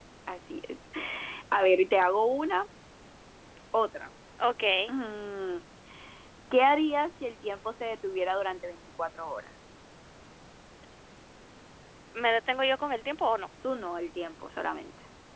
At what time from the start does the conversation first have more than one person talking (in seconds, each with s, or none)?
none